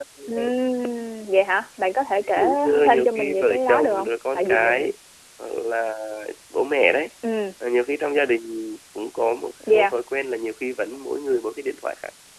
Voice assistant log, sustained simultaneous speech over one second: present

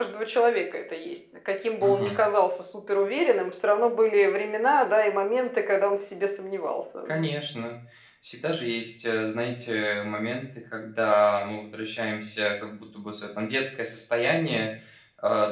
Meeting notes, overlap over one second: none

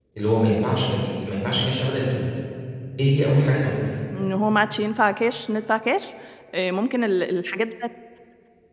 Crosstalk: none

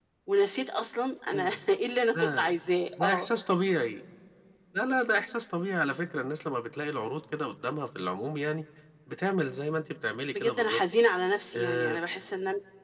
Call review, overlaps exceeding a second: none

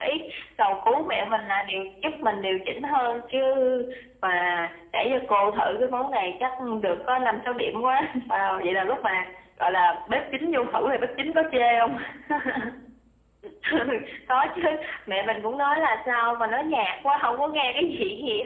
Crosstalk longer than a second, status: none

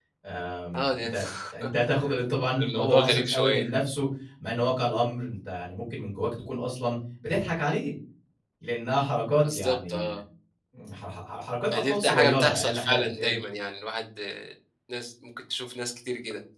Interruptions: present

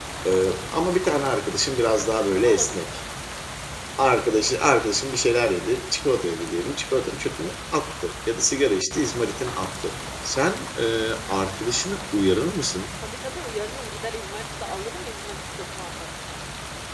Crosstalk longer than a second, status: none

